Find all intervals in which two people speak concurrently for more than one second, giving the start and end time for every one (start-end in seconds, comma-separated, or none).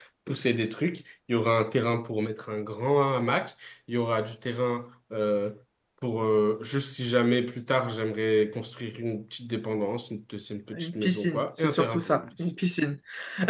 10.7-12.6